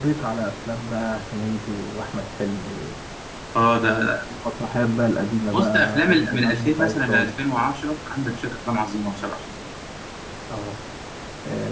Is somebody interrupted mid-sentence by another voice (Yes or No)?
Yes